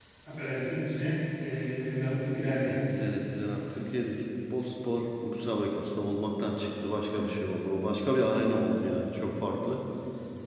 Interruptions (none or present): none